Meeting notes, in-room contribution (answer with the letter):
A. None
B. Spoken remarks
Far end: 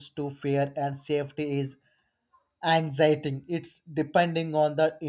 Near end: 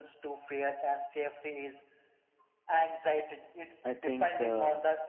B